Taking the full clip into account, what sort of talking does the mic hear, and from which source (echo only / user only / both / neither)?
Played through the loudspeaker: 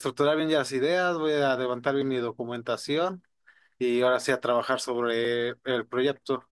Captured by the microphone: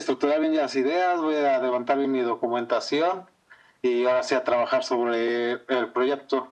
echo only